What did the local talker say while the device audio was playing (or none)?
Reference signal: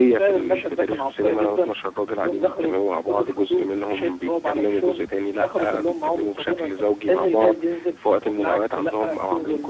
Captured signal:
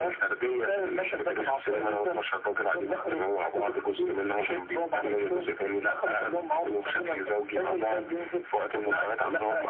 none